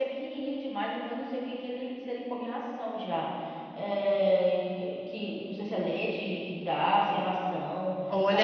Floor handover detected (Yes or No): Yes